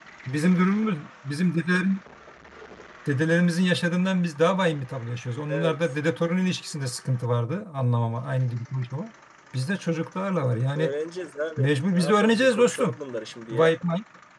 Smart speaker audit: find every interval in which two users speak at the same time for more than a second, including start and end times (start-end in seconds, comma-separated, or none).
11.6-13.0